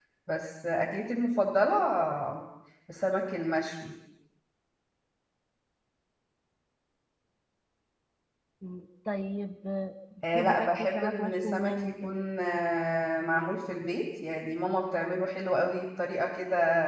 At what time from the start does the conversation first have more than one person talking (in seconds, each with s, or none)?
10.2 s